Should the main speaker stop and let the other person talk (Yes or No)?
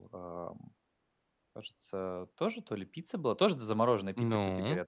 No